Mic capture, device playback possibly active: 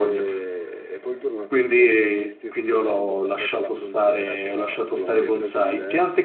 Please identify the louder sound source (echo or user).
user